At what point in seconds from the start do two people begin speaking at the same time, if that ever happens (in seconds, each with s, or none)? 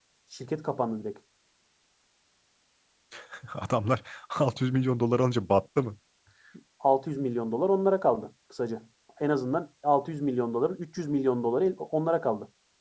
none